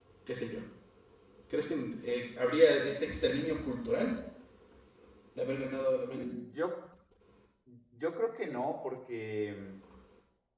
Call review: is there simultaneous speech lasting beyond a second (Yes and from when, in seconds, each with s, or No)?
No